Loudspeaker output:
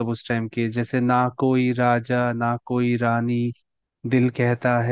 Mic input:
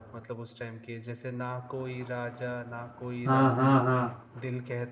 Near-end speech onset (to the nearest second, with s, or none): 3 s